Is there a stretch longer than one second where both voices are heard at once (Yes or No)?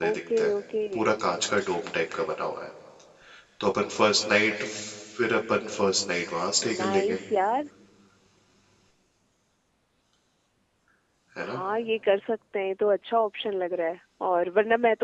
No